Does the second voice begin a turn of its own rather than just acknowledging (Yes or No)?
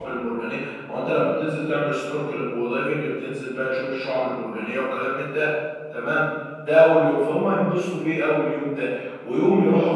Yes